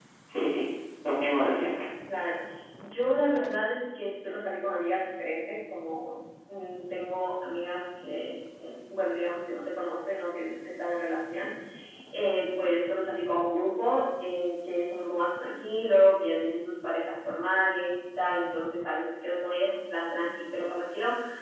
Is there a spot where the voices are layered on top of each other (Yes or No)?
No